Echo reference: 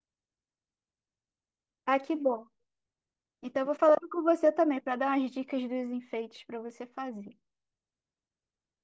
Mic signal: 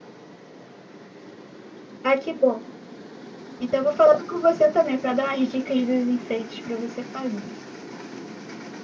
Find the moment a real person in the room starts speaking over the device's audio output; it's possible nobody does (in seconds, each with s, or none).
none